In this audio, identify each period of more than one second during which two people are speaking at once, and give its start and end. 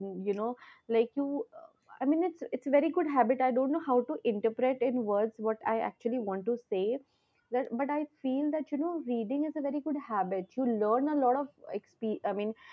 none

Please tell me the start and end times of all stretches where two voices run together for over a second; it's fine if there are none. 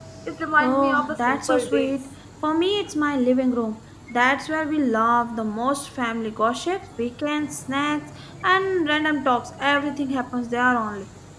0.6-1.9

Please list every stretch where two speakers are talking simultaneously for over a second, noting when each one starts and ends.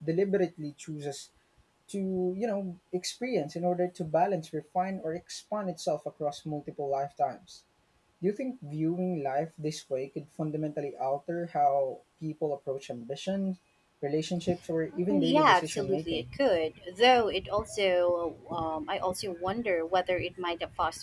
15.1-16.3

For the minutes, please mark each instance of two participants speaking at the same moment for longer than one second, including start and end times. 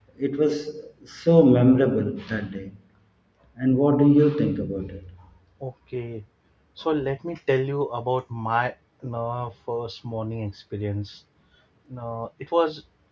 none

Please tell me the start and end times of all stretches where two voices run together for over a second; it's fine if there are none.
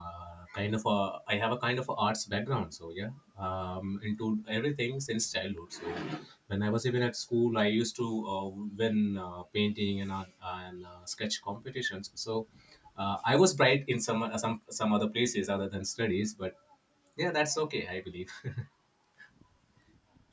none

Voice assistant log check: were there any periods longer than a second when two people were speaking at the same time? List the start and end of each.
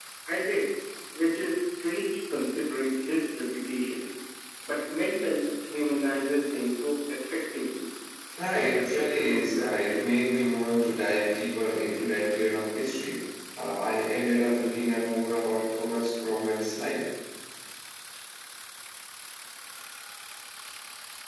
8.5-10.0

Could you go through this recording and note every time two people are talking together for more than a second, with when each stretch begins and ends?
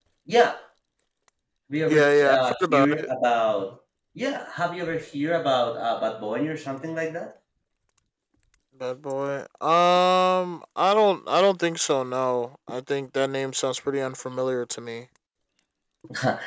1.9-3.1

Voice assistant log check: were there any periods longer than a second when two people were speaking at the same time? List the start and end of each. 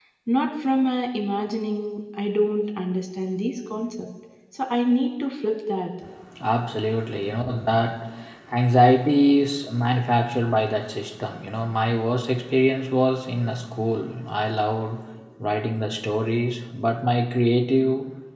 none

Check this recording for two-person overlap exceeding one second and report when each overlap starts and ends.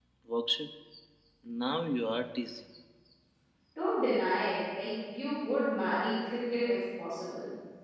none

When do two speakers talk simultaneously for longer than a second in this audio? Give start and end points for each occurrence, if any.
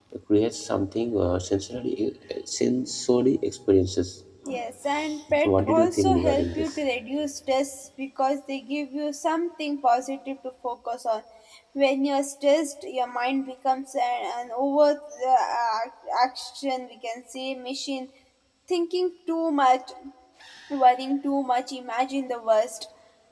5.4-6.7

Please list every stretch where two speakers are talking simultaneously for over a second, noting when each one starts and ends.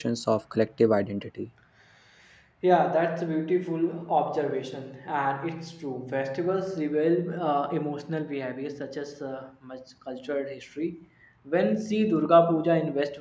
none

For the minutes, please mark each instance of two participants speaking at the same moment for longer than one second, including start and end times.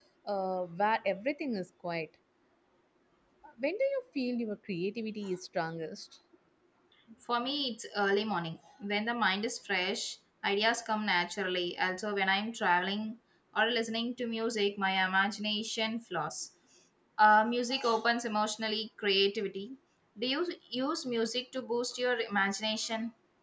none

